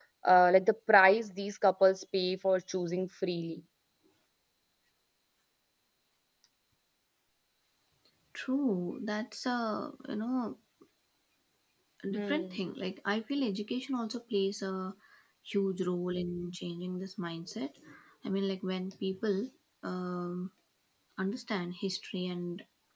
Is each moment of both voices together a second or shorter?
Yes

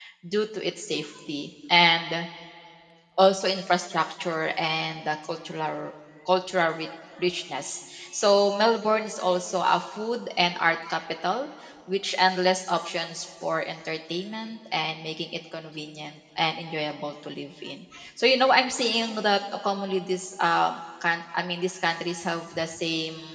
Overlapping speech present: No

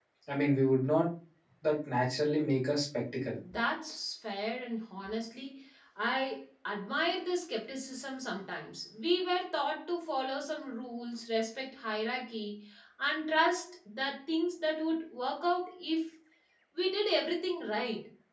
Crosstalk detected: No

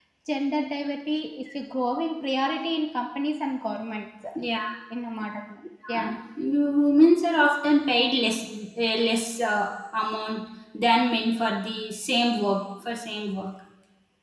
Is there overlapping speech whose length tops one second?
No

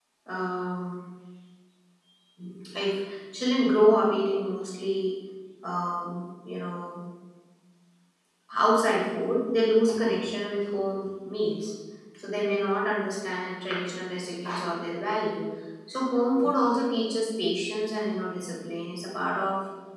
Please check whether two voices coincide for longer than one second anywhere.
No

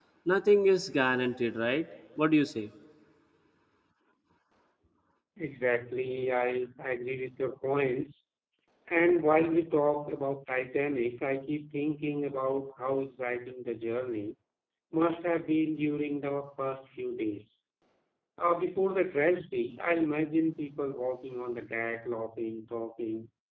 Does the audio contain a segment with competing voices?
No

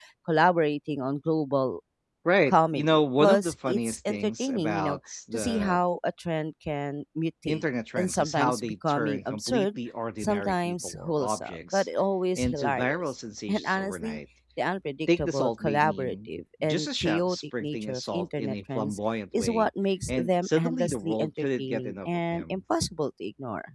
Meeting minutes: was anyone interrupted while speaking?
Yes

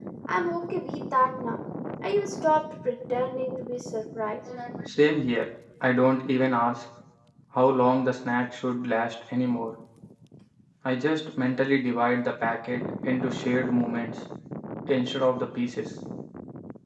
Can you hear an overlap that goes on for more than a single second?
No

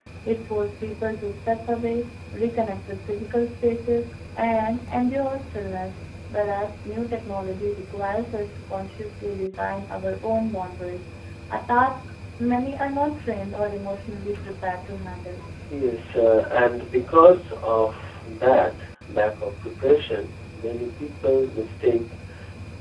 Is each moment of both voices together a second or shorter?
Yes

